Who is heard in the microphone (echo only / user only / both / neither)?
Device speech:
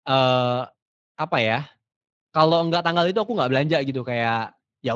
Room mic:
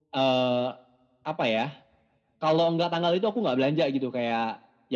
echo only